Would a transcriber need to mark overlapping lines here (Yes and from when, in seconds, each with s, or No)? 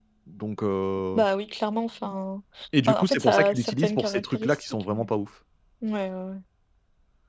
Yes, from 2.9 s